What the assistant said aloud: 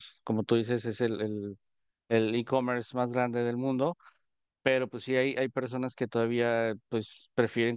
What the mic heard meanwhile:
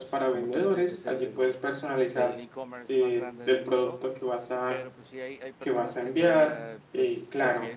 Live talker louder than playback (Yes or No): Yes